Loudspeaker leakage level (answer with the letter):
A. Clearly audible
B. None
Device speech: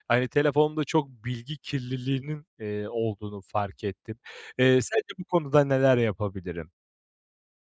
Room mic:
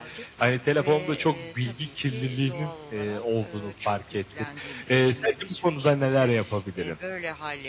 A